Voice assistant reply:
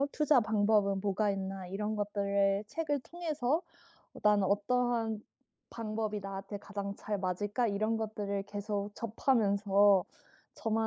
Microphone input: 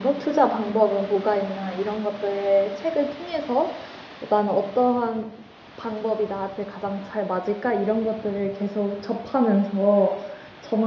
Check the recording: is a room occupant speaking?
No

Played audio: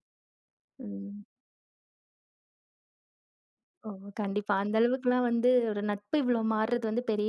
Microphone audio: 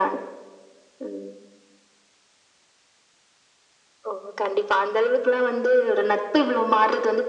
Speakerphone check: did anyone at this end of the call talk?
No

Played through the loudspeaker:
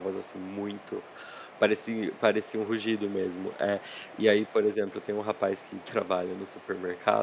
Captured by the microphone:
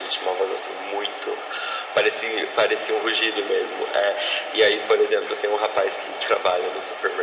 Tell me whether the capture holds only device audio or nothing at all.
Yes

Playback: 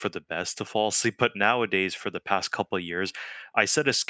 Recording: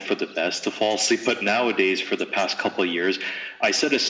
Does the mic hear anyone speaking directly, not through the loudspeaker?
No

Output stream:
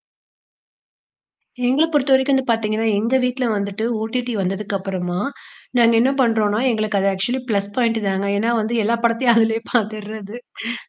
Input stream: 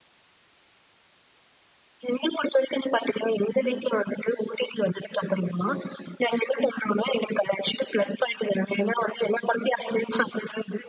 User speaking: No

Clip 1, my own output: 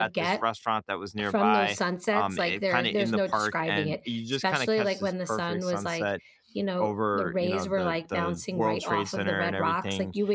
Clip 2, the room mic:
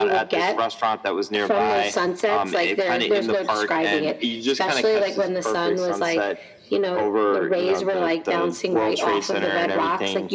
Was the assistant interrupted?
No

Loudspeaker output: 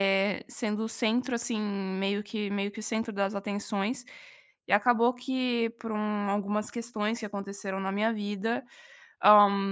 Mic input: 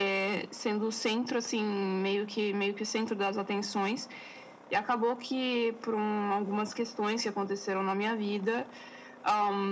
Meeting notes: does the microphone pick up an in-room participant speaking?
No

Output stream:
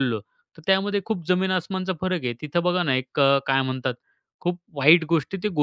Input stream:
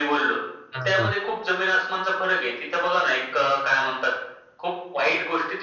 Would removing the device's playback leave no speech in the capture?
No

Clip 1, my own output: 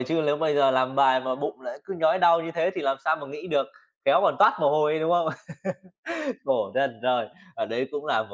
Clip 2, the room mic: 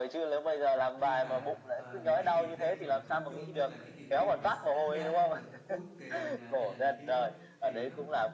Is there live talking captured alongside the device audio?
Yes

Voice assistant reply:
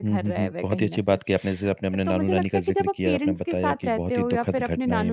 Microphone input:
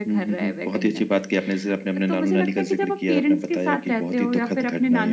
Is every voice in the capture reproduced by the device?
Yes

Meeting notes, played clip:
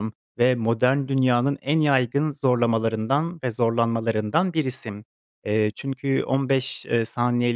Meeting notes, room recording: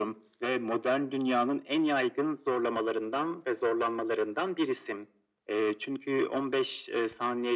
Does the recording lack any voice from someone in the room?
Yes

